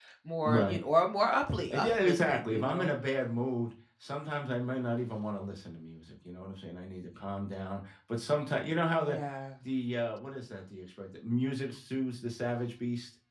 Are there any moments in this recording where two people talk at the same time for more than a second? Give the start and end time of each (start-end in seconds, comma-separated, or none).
1.7-2.9